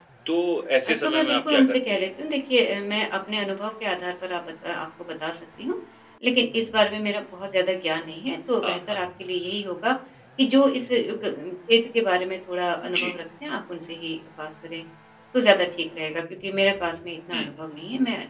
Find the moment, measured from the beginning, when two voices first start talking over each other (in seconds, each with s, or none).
0.8 s